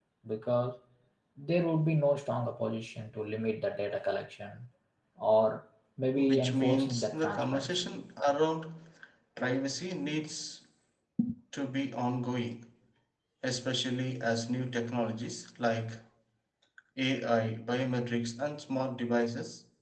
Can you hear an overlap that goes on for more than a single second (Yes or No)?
Yes